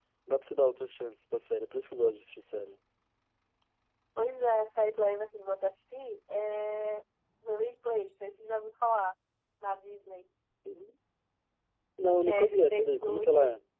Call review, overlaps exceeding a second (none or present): present